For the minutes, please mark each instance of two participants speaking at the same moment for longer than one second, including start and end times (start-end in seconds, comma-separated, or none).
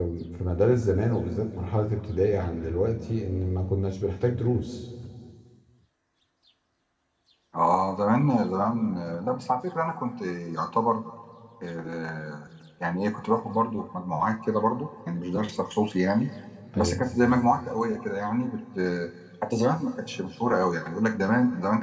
none